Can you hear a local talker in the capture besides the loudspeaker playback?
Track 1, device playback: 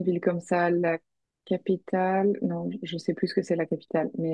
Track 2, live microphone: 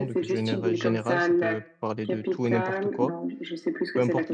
Yes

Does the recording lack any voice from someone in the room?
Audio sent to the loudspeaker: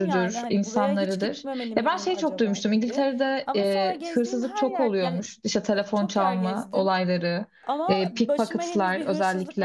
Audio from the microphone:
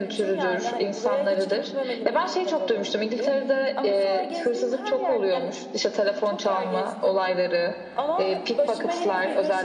No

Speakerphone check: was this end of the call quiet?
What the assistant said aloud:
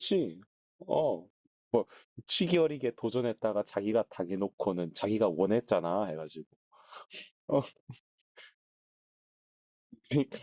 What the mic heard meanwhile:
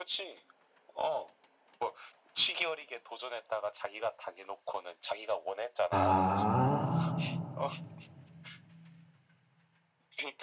No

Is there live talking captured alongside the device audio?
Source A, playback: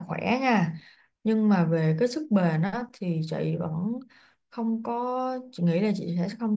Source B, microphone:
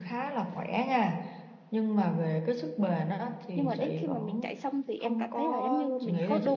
Yes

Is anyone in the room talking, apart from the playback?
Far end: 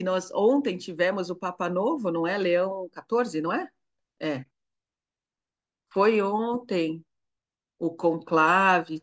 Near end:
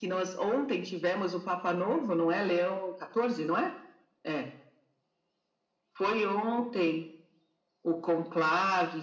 No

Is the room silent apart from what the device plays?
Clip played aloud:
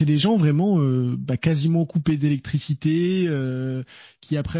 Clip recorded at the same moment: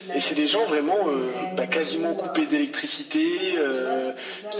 No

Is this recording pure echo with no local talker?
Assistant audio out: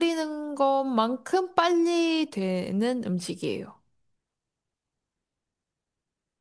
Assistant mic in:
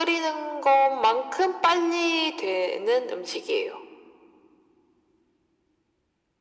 Yes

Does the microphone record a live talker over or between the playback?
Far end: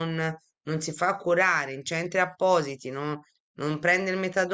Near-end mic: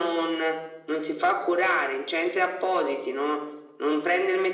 No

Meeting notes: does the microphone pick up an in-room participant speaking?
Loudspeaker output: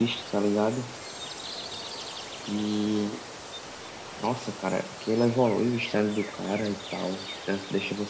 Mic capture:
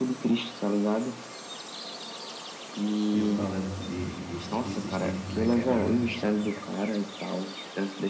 Yes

